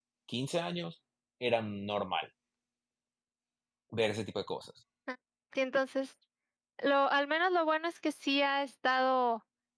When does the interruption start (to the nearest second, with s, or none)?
none